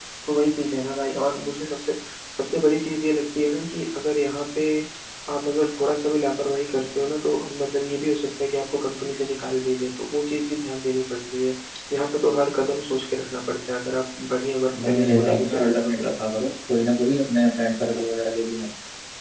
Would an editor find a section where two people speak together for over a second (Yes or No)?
Yes